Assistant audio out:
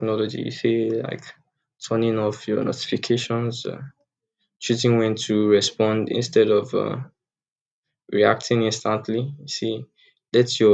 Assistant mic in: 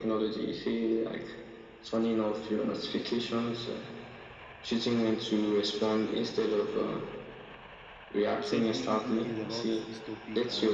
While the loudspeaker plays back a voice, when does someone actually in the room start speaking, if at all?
8.3 s

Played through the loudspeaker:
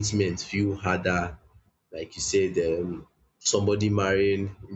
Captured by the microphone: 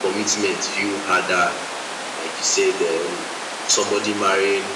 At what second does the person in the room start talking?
none

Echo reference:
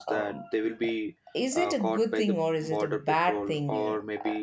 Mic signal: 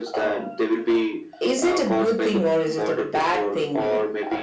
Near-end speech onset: none

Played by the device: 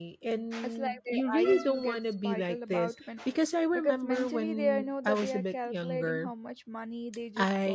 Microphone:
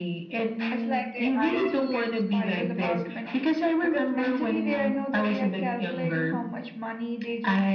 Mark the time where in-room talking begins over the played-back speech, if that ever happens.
none

